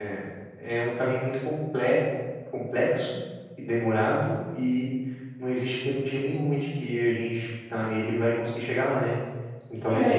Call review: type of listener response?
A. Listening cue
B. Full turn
B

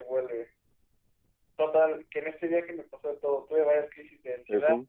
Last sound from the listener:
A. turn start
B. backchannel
B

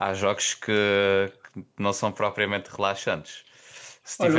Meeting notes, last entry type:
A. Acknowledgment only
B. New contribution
B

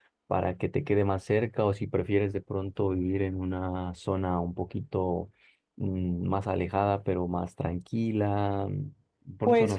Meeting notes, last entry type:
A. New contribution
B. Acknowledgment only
A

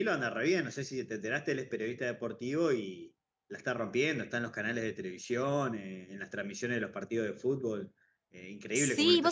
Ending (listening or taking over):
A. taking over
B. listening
A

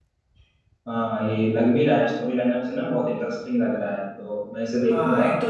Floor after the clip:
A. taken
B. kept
A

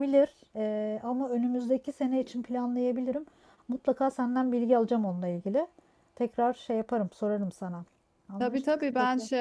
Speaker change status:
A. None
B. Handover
B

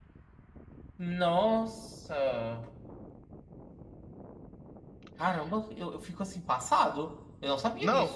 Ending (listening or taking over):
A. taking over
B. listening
A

